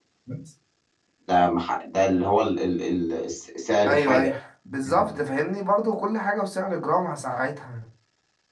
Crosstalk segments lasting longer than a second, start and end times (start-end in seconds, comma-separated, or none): none